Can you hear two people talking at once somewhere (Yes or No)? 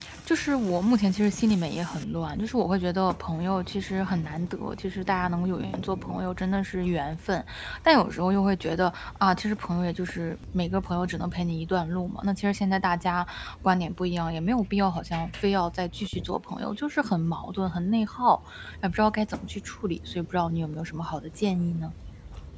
No